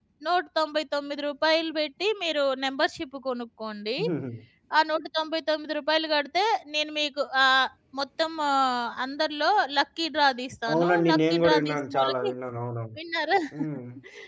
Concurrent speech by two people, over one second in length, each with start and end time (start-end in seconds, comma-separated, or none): 10.7-12.3